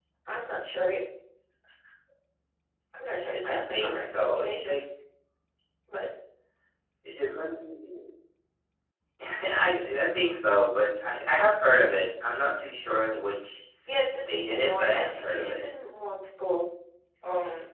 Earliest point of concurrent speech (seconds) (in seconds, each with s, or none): 3.4 s